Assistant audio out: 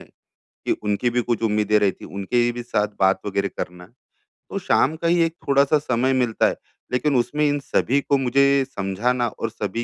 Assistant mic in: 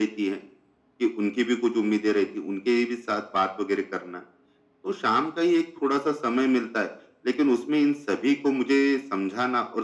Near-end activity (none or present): none